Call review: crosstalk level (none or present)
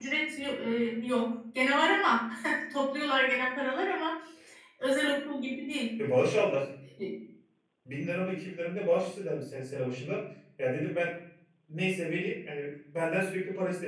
none